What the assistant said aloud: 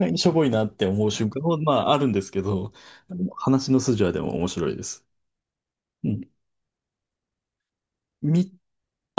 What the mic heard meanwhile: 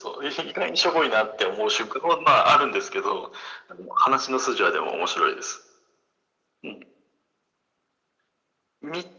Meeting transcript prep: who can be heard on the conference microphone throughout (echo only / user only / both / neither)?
echo only